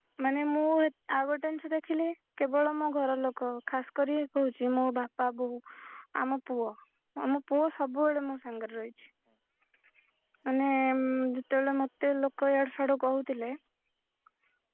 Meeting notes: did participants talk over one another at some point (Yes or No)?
No